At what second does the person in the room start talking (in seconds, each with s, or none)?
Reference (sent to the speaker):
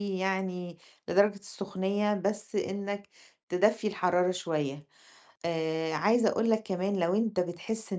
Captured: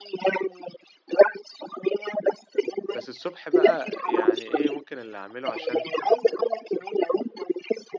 2.9 s